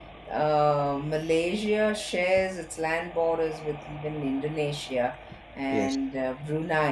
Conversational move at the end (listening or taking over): listening